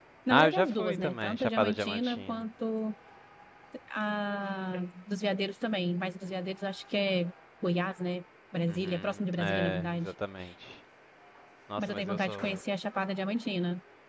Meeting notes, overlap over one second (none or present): present